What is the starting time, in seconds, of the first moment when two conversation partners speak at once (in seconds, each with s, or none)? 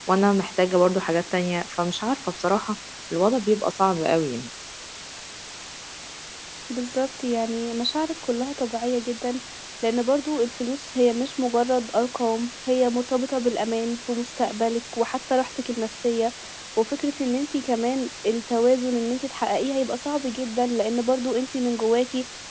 none